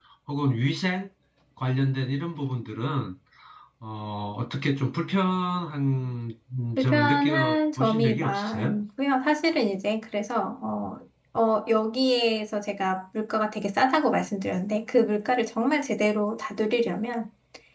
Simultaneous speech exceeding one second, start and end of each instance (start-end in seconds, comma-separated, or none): 6.8-8.8